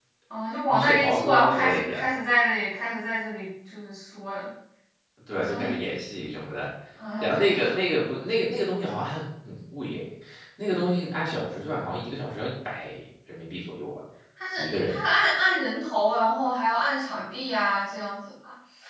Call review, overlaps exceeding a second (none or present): present